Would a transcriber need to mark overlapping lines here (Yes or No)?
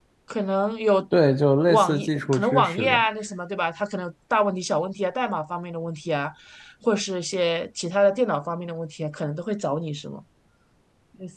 Yes